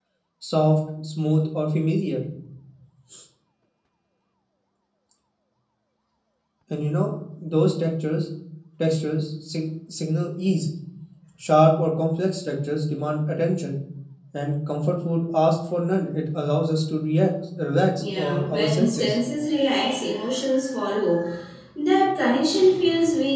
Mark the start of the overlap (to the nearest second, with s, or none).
18 s